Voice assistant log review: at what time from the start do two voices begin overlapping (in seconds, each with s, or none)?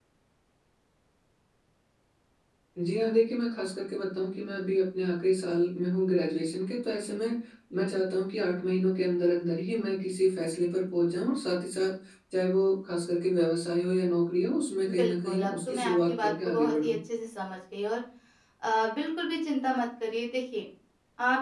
14.9 s